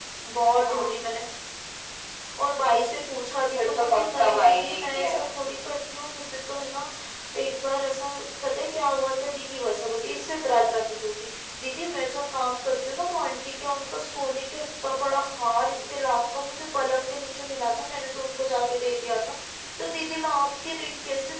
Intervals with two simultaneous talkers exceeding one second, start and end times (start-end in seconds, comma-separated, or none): 3.5-5.3